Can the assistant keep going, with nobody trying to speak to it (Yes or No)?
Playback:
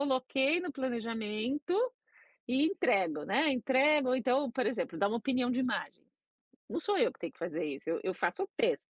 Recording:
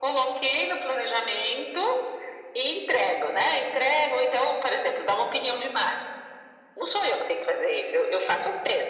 Yes